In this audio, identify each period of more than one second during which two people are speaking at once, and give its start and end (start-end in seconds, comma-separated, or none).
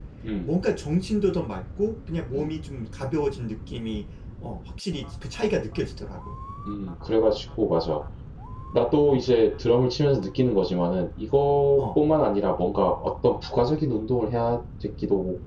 none